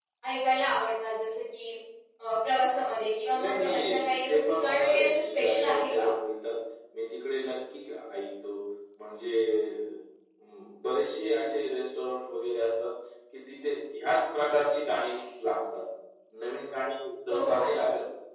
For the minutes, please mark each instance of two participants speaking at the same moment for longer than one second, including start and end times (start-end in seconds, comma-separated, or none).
3.3-6.0